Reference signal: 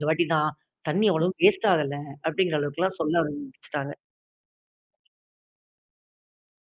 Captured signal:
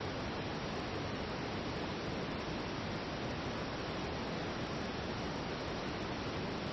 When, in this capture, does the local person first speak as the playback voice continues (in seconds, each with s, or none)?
none